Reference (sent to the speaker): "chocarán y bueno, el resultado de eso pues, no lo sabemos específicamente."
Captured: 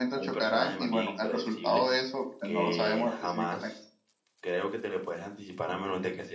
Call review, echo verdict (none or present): present